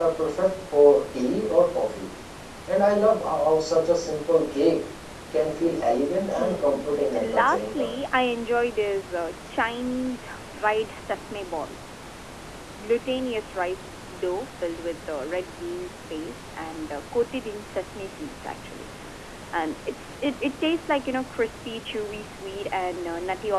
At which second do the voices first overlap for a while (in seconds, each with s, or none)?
6.4 s